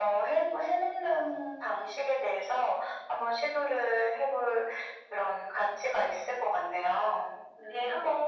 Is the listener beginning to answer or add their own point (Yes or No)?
Yes